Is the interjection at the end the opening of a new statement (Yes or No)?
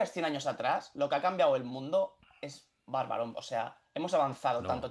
No